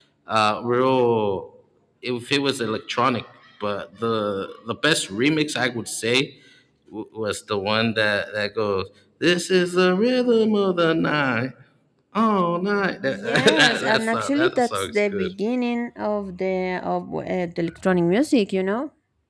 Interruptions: present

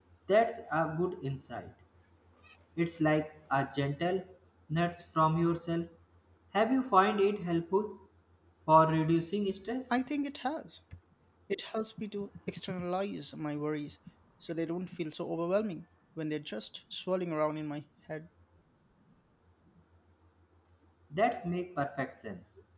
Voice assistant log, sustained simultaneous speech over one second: none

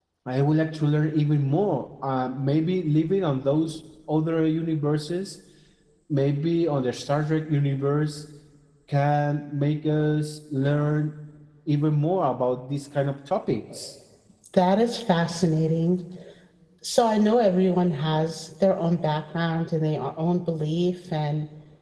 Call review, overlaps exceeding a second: none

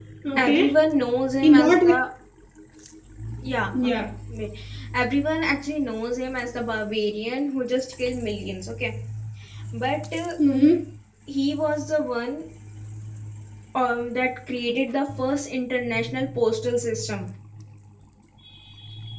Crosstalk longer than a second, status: none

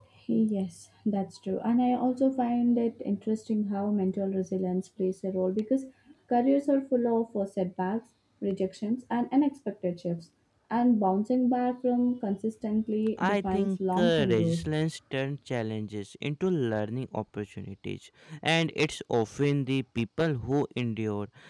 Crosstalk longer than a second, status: present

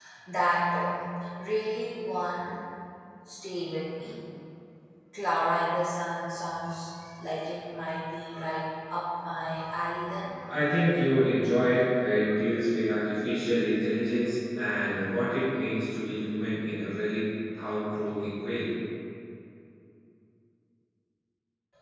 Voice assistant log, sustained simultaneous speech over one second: none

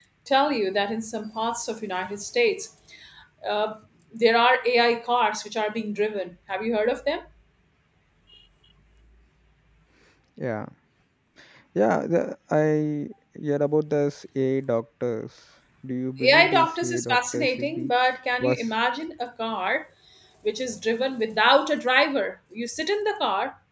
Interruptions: present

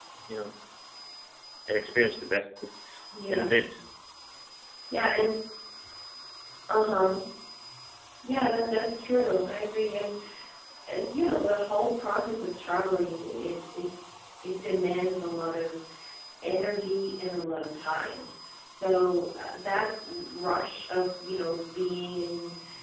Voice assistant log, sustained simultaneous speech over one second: none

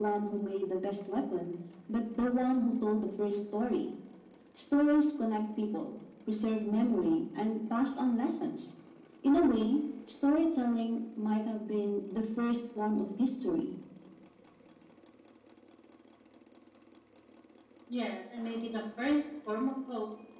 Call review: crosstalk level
none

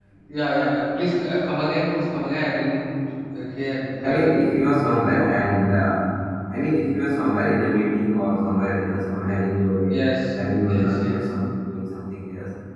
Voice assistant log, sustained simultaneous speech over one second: none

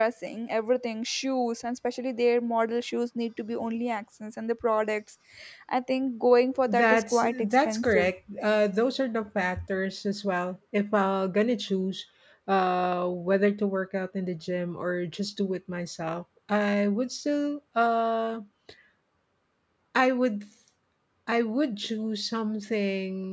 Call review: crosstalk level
present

